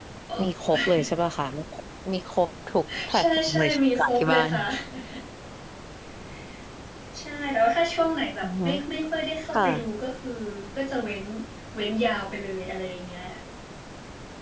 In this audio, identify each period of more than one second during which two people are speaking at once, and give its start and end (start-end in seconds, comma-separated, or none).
3.2-4.5